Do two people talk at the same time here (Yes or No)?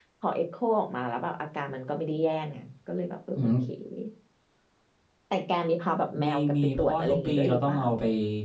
Yes